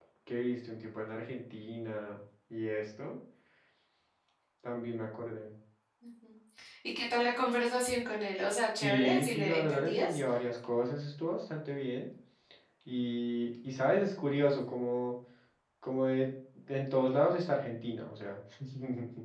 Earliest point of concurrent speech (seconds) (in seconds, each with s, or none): 8.8 s